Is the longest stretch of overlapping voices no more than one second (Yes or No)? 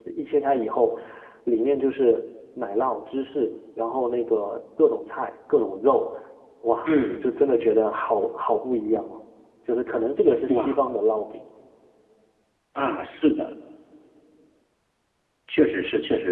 Yes